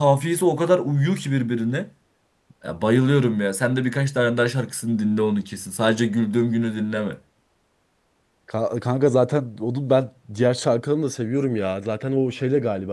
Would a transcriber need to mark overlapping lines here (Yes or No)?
No